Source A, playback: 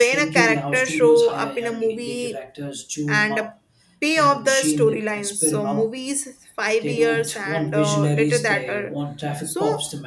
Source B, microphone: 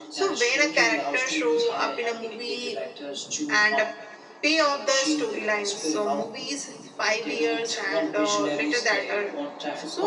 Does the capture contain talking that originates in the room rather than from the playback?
No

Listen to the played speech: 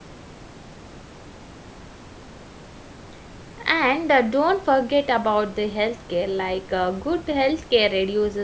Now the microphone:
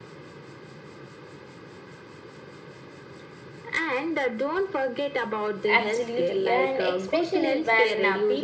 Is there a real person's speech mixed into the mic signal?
Yes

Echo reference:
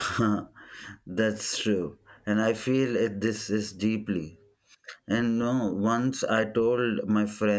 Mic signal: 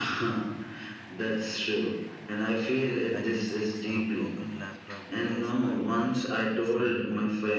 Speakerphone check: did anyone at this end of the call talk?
Yes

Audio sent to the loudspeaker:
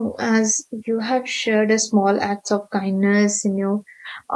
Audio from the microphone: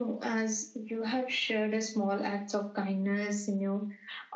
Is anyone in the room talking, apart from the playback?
No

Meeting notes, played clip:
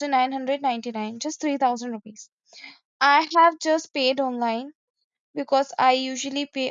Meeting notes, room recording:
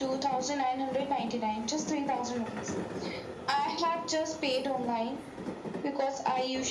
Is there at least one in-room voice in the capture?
No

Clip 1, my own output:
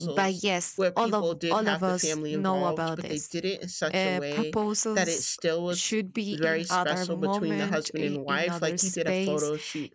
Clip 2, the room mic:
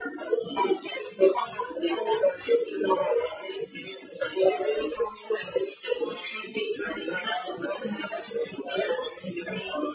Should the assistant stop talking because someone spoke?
No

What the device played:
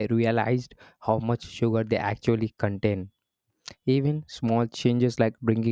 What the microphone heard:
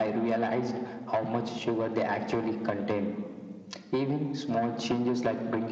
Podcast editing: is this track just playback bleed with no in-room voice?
Yes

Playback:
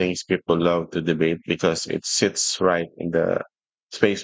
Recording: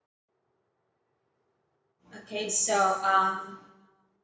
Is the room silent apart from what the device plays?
No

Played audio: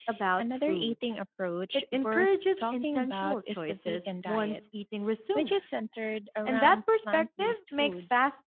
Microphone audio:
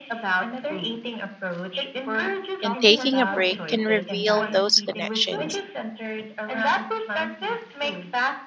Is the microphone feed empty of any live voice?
No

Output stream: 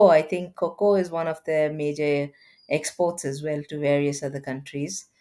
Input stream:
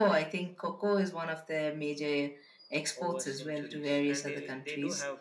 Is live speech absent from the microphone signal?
No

